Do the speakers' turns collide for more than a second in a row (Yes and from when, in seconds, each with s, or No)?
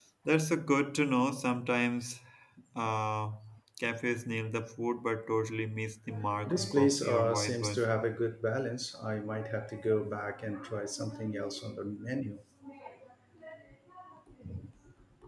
Yes, from 6.4 s